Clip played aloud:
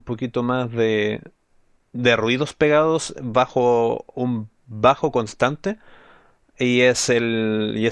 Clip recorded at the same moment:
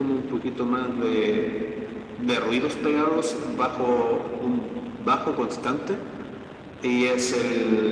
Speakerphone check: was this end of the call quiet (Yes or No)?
Yes